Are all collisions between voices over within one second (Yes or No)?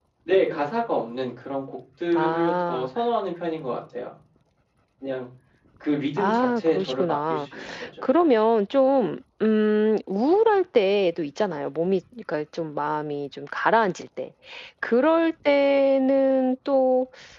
No